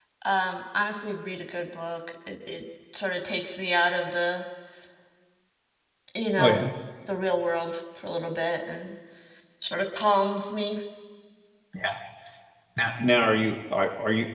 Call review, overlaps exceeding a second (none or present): none